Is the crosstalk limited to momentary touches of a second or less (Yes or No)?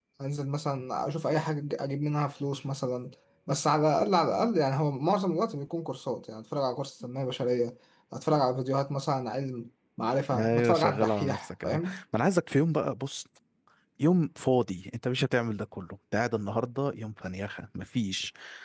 No